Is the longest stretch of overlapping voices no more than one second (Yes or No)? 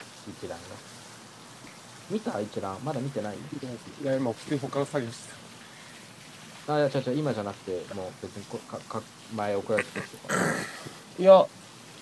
Yes